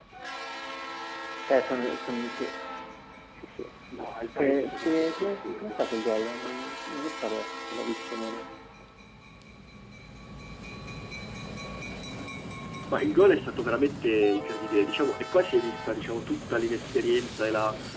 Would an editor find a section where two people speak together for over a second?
Yes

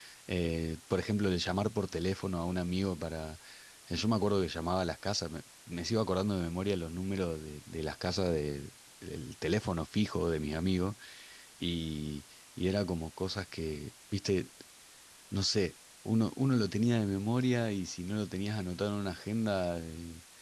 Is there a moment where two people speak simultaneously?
No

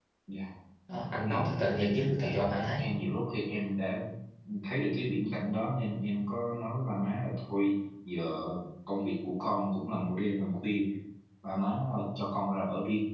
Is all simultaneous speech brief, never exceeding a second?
No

